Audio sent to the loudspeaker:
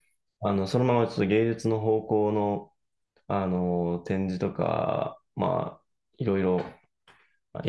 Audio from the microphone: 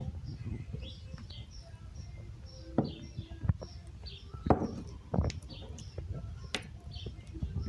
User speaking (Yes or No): No